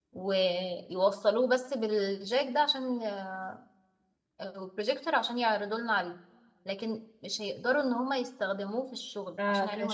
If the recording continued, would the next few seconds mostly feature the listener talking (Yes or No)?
Yes